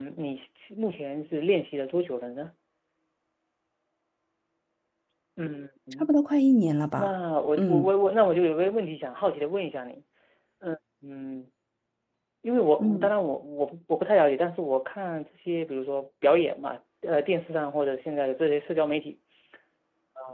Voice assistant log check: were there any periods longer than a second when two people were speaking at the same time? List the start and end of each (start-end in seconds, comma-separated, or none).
none